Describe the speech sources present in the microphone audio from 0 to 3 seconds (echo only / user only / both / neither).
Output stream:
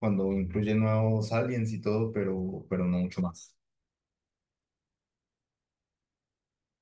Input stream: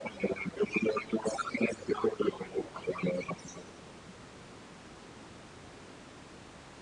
echo only